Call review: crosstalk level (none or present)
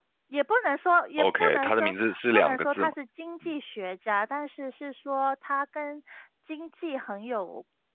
present